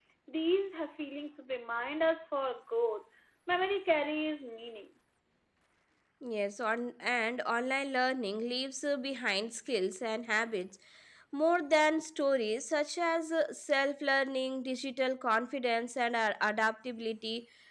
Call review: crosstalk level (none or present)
none